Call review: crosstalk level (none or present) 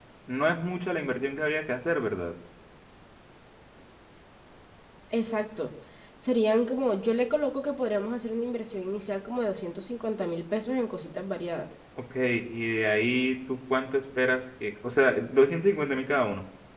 none